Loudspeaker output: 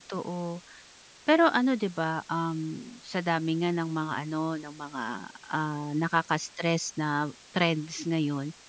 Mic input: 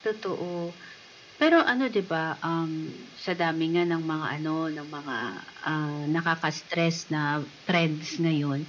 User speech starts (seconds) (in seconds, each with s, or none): none